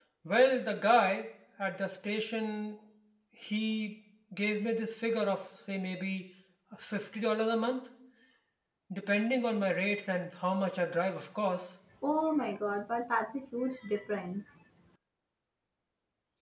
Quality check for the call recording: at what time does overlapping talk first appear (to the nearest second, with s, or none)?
none